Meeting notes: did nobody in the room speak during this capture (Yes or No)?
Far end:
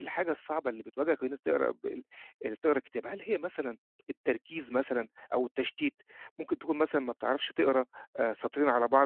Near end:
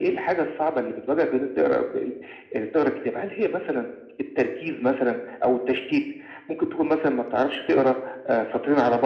Yes